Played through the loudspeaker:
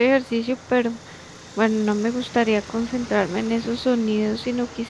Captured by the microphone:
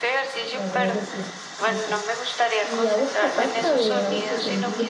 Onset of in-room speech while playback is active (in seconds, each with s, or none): 0.5 s